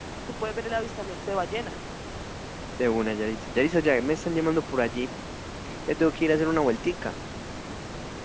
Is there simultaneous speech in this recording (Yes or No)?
No